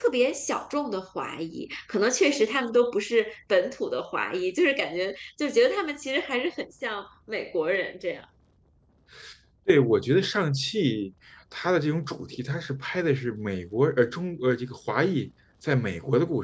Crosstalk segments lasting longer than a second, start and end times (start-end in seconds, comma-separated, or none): none